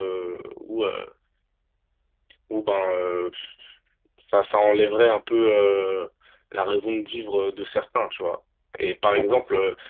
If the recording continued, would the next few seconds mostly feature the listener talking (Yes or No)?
No